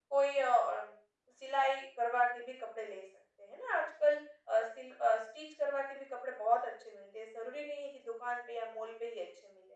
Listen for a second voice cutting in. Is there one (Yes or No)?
No